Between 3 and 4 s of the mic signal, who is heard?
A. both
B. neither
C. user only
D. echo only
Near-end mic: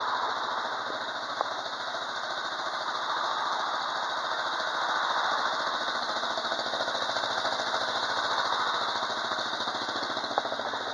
B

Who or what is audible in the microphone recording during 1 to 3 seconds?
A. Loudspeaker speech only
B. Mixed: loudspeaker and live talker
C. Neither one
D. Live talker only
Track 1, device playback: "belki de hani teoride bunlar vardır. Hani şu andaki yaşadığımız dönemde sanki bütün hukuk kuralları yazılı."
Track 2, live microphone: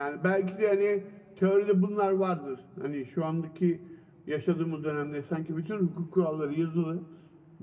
A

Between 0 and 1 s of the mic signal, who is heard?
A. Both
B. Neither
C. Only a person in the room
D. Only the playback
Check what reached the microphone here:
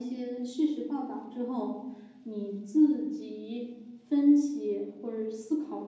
D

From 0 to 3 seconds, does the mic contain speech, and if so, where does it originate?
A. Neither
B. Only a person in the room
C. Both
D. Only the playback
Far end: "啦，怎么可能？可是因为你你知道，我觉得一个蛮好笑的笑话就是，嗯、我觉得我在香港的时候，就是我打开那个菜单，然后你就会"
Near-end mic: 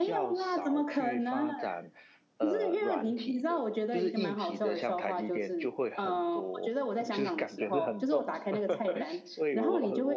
C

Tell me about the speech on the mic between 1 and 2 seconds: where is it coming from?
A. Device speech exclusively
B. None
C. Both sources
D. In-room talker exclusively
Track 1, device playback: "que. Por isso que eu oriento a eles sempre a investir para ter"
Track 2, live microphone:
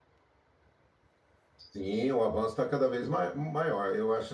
D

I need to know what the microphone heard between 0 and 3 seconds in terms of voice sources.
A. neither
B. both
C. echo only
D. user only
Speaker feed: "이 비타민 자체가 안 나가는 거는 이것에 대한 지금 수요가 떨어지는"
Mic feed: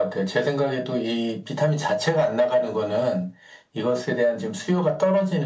C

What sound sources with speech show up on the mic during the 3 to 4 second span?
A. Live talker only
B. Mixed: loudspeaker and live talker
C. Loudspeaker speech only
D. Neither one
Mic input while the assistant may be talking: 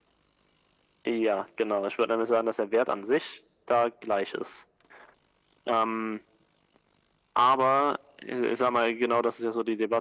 C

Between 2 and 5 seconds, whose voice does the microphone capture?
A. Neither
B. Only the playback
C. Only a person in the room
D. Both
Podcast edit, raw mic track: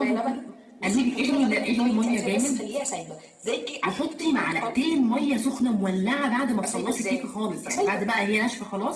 B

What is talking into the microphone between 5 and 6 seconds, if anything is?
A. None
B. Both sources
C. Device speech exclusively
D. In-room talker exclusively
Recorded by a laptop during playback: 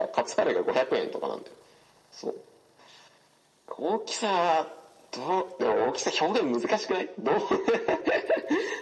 C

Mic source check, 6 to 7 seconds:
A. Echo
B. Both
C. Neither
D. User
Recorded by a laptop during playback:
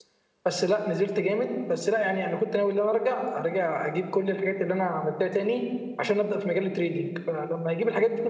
D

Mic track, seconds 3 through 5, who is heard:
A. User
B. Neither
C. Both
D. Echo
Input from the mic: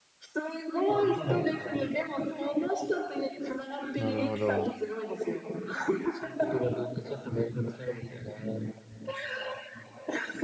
C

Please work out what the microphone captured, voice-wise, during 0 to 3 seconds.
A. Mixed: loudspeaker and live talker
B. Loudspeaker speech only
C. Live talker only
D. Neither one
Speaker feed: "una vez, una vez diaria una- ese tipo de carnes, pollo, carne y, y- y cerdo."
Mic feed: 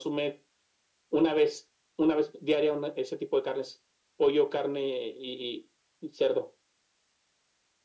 B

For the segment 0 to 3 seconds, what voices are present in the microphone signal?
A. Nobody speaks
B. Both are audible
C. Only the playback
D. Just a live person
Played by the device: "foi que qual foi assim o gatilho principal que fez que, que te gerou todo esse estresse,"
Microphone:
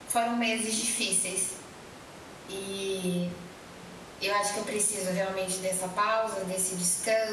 D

